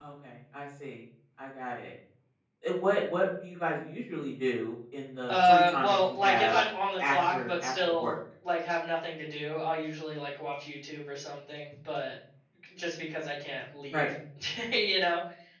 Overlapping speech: Yes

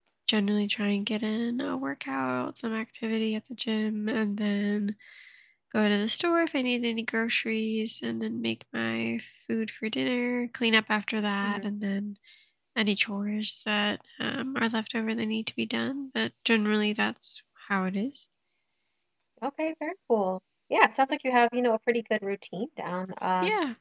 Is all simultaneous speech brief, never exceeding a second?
Yes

